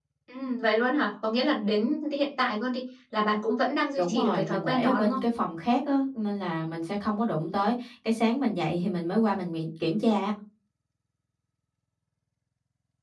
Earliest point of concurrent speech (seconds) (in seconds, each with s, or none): 4.0 s